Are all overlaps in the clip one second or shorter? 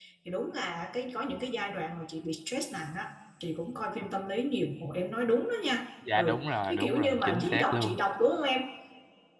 No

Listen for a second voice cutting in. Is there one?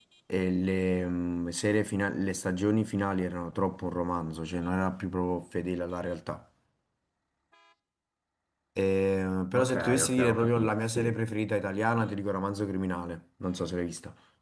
Yes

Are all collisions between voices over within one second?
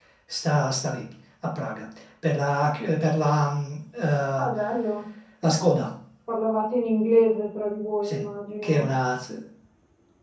Yes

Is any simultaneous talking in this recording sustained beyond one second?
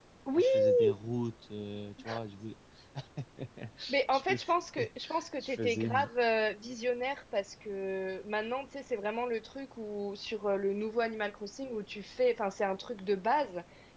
Yes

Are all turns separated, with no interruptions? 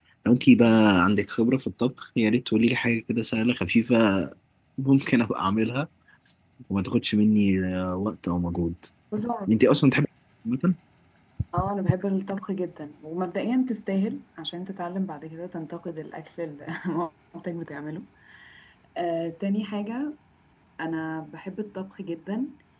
Yes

